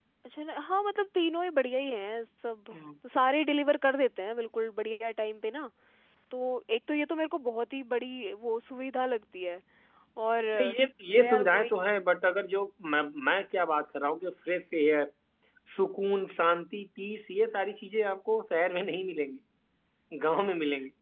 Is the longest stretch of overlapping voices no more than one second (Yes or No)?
Yes